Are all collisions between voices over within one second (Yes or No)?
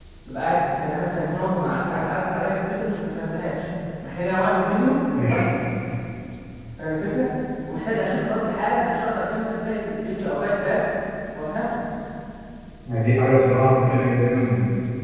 Yes